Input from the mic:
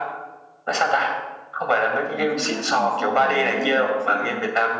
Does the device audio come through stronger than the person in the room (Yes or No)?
Yes